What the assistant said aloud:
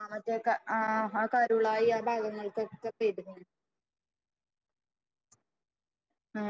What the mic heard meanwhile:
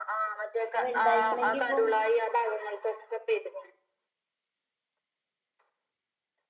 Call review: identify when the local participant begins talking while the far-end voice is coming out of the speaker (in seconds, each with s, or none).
0.7 s